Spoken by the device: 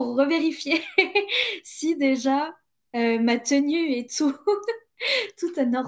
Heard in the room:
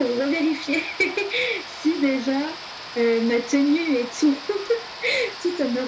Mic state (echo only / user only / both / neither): echo only